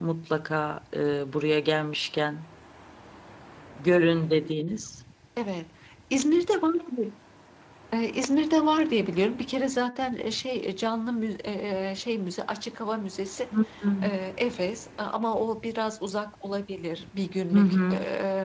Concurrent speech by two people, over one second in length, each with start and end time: none

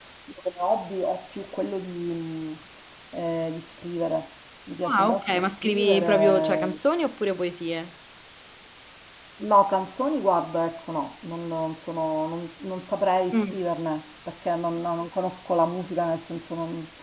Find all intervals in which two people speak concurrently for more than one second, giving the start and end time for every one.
4.8-6.8

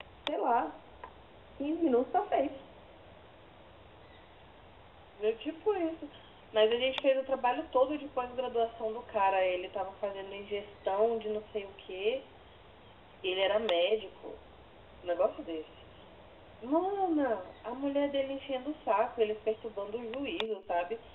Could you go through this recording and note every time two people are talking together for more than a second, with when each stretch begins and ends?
none

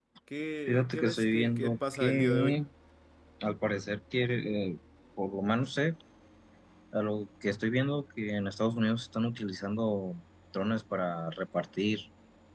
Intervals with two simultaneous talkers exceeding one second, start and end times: 0.7-2.6

